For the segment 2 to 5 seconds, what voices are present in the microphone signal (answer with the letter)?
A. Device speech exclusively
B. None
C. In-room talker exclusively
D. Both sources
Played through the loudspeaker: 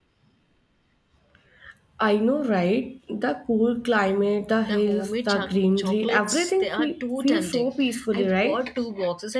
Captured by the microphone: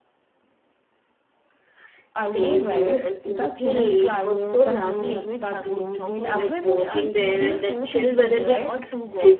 D